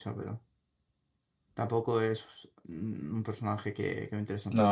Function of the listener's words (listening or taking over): taking over